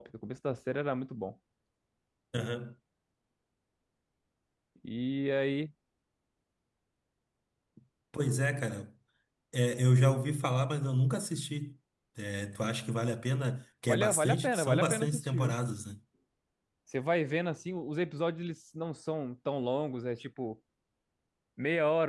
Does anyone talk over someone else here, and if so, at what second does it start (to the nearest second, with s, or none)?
14 s